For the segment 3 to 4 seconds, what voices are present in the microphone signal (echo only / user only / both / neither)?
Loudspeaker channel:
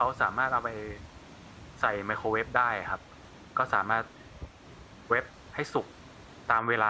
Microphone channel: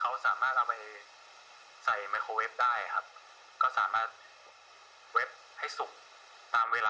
echo only